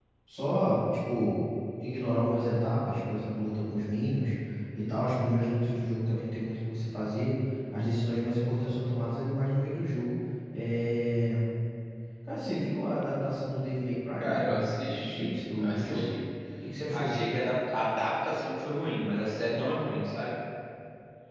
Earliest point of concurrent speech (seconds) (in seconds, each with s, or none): 14.2 s